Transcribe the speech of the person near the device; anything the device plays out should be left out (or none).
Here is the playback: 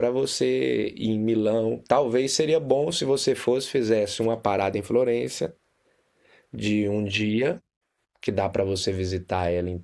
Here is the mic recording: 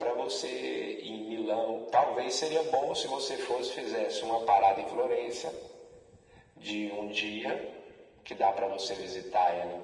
none